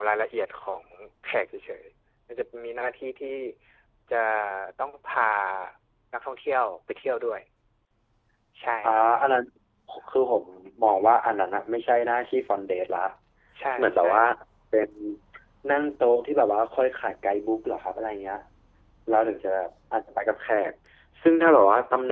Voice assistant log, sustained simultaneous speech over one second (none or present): none